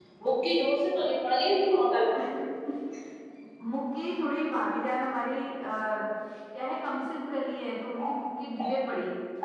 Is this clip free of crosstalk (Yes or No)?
Yes